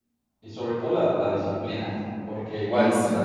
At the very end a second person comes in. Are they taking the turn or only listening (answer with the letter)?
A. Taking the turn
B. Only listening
B